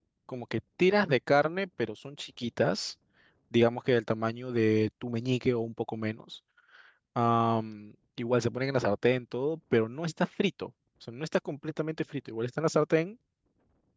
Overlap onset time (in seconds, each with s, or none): none